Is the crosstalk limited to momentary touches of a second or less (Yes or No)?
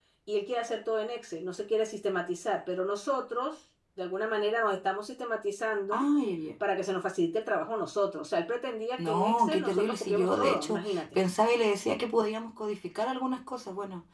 No